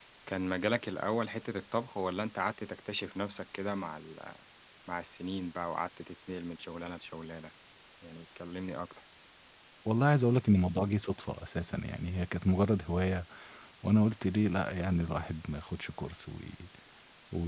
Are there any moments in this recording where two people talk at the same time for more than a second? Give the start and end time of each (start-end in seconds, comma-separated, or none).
none